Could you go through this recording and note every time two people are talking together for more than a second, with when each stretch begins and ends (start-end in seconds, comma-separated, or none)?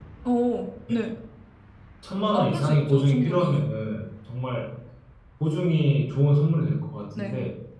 2.3-3.6